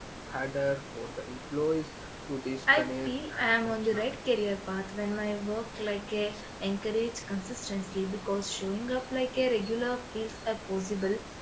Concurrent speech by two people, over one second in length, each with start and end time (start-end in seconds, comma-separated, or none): 2.7-4.2